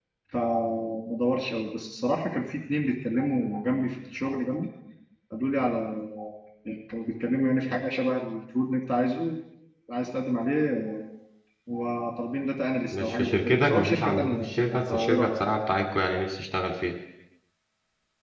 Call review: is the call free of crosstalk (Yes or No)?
No